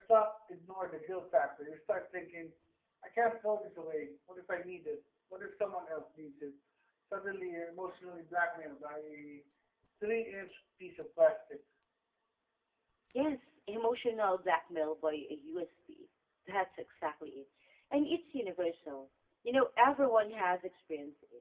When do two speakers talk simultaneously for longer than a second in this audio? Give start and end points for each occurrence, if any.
none

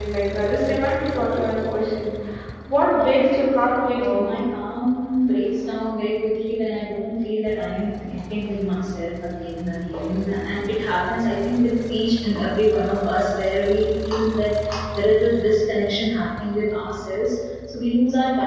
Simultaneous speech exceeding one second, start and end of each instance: 3.0-4.3

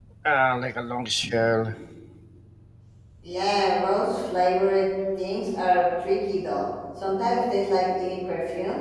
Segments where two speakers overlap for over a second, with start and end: none

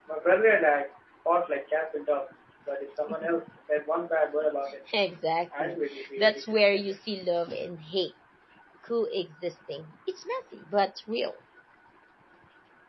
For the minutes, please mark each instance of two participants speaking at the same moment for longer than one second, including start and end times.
5.6-6.9

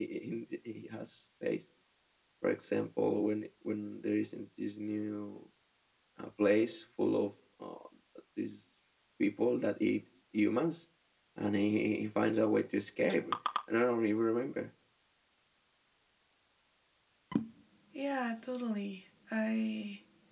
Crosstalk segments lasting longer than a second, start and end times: none

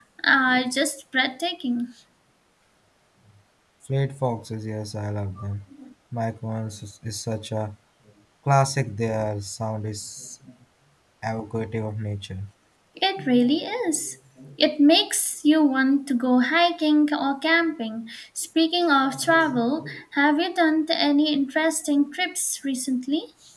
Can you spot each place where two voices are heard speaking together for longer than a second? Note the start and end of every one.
none

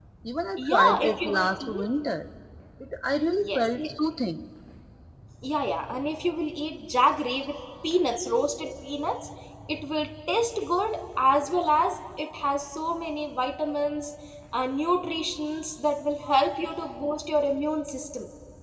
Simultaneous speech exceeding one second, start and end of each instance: 0.6-1.8

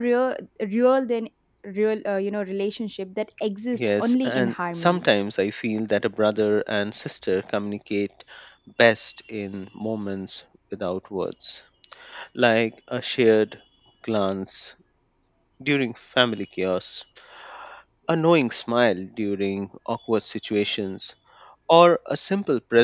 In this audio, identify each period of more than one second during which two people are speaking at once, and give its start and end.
3.7-5.1

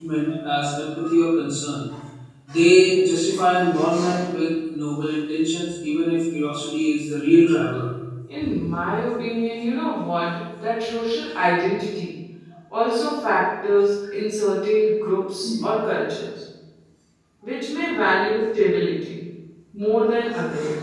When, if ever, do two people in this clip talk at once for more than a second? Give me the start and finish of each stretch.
none

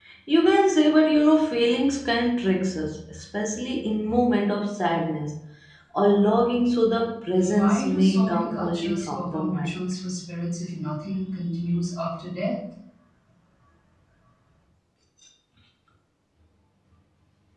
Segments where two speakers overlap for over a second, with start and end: 7.5-9.7

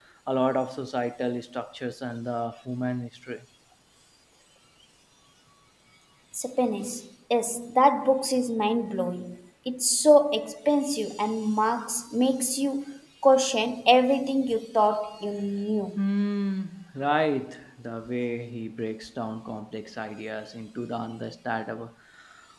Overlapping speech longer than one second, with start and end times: none

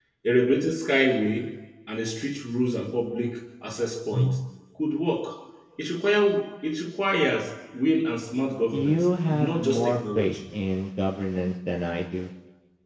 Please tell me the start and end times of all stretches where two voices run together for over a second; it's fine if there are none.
8.7-10.6

